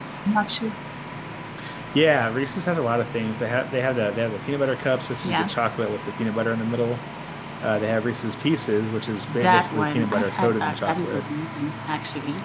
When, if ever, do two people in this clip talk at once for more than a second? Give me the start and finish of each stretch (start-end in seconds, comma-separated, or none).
9.3-11.2